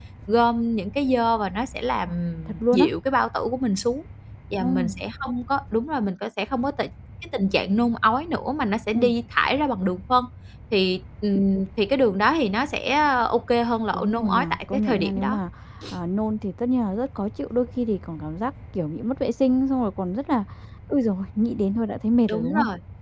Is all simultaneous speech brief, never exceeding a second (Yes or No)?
No